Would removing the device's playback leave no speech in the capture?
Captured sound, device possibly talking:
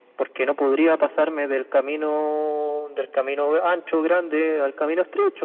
Yes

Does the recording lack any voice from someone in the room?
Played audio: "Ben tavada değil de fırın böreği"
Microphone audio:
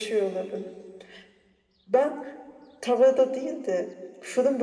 Yes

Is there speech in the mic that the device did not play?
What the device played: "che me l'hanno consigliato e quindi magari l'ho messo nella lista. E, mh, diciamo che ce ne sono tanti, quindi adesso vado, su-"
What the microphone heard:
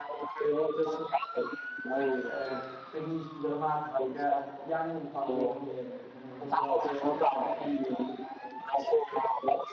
Yes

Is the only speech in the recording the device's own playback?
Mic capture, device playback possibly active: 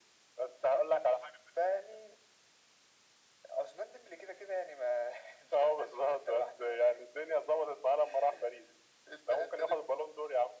Yes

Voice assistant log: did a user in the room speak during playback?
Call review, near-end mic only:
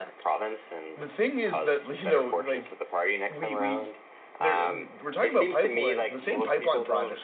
Yes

